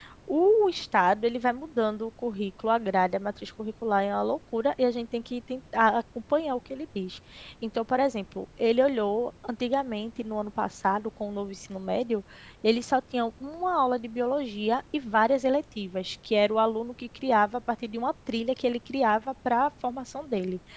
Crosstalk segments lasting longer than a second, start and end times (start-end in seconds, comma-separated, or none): none